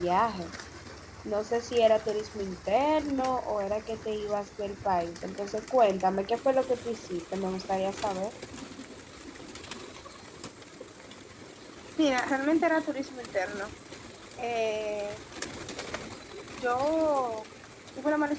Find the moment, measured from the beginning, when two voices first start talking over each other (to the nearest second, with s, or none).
none